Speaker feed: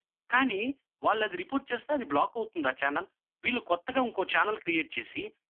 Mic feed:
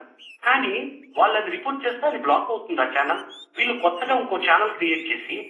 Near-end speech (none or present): none